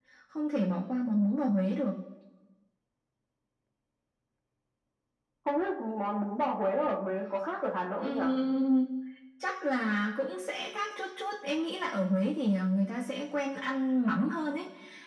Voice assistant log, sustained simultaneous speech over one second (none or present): none